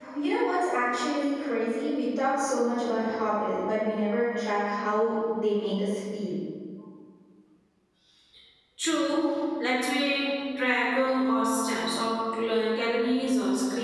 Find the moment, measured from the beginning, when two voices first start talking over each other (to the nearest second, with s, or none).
none